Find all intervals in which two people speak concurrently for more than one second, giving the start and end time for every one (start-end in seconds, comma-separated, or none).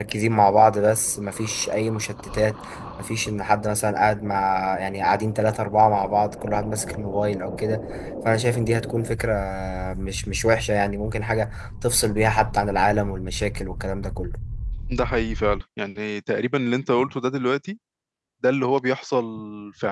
none